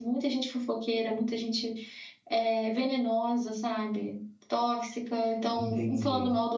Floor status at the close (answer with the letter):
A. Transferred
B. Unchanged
B